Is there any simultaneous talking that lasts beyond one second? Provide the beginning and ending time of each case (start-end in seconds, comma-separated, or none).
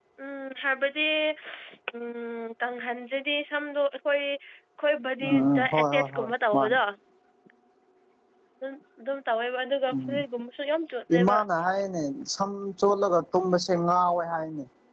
5.2-6.8